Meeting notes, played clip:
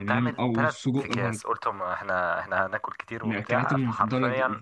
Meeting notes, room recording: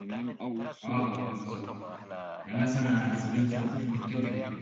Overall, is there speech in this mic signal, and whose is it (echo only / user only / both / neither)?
both